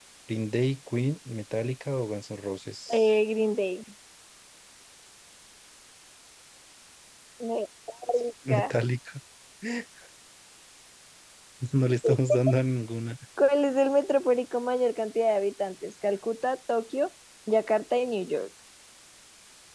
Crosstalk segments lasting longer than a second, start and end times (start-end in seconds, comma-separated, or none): none